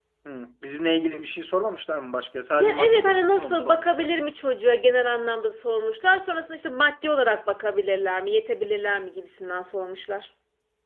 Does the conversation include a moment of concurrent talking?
Yes, from 2.6 s

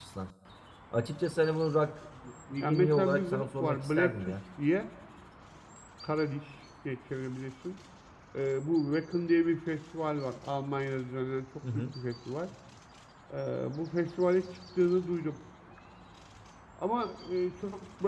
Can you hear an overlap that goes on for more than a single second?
Yes, from 2.6 s

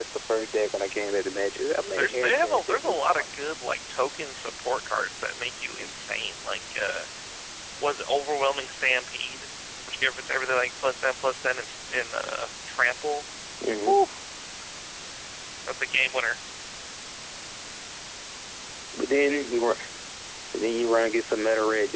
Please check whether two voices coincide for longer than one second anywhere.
Yes, from 2.0 s

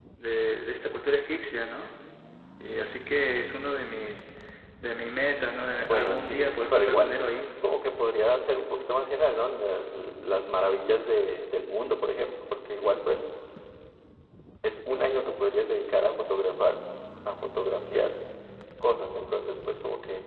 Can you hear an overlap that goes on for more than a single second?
Yes, from 5.8 s

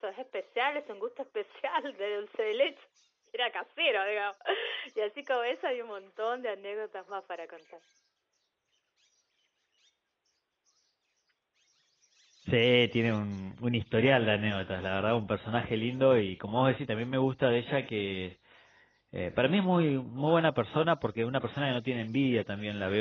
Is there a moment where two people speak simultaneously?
No

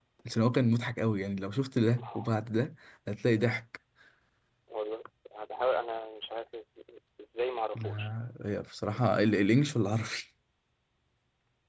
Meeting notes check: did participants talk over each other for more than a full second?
No

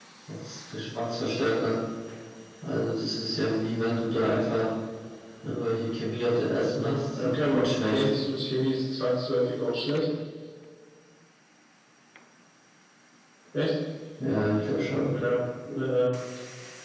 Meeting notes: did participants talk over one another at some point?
Yes, from 6.7 s

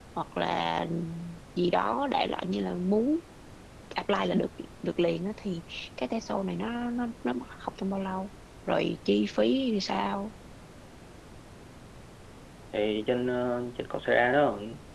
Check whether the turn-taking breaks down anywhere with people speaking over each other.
No

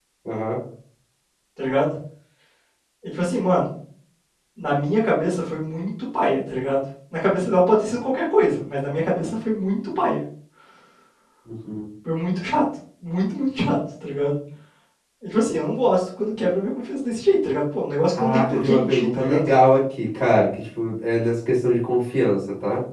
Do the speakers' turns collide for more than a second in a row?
Yes, from 18.2 s

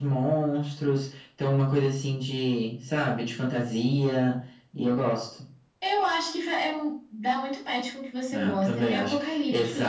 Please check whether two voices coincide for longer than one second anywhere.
Yes, from 8.3 s

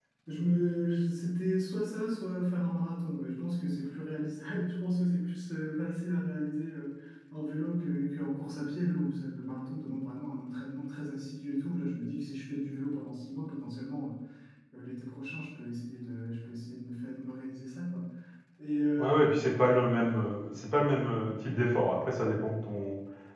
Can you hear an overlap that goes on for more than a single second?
No

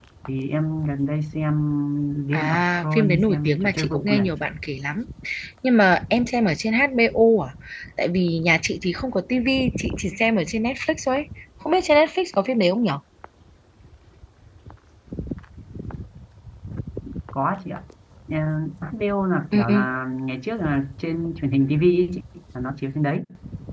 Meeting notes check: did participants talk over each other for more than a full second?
Yes, from 2.3 s

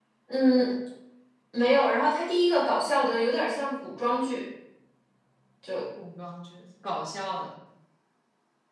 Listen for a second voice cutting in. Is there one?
No

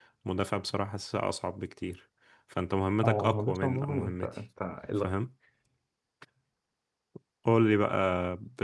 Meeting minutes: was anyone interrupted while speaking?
Yes, from 3.0 s

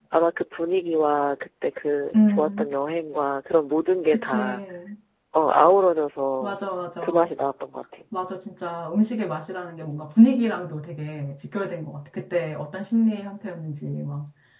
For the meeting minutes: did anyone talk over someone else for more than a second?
No

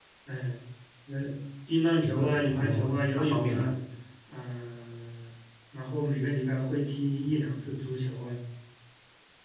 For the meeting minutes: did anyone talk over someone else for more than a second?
Yes, from 2.0 s

